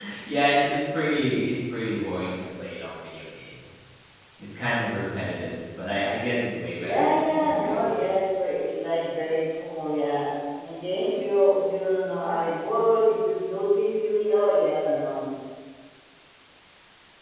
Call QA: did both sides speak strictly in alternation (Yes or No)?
No